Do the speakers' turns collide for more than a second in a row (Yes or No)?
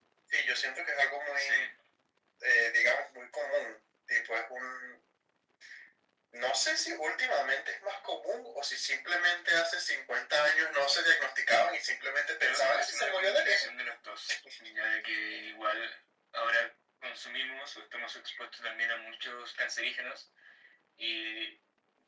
Yes